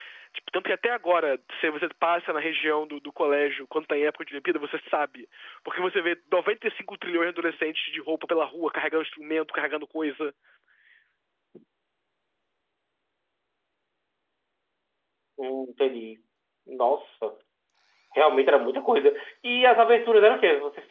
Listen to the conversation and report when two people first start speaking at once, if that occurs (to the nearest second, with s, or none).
none